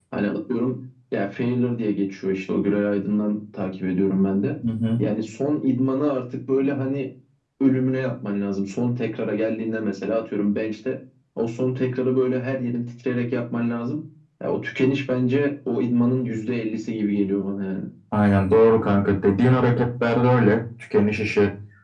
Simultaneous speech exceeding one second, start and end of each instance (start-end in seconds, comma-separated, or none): none